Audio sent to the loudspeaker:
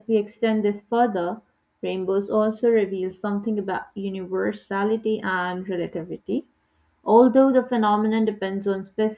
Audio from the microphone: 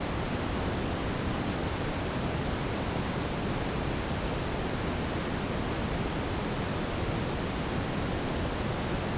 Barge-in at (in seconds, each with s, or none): none